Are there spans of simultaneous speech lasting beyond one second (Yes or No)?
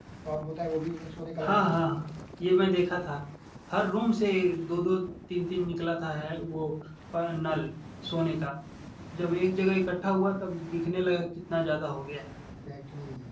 No